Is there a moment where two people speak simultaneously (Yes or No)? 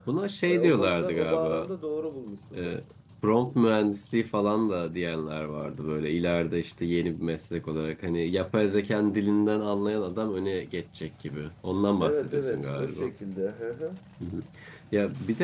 Yes